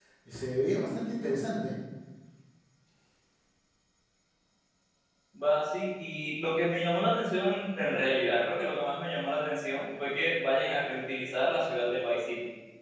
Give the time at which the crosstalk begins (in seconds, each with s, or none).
none